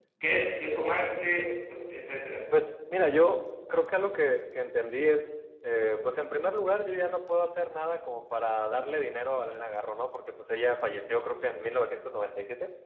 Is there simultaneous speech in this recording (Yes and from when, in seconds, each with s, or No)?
No